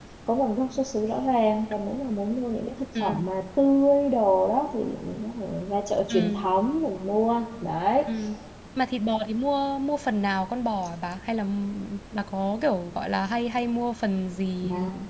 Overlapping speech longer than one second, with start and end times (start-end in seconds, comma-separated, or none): none